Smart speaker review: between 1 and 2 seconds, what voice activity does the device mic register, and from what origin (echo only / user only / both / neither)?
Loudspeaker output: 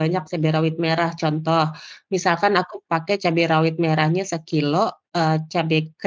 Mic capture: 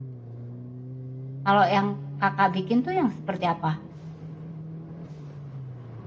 user only